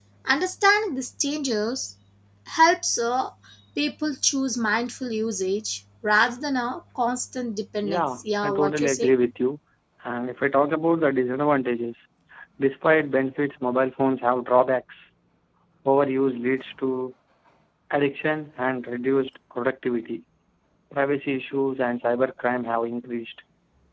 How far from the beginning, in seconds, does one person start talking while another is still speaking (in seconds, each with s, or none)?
7.8 s